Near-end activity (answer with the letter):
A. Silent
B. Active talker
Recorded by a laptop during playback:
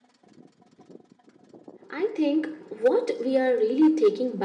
B